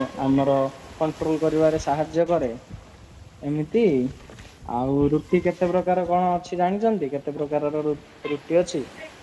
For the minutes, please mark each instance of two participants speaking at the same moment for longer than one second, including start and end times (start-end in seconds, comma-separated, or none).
none